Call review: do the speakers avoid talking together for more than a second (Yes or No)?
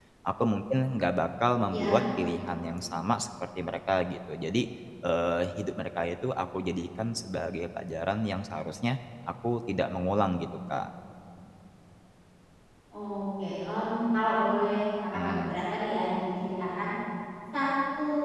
Yes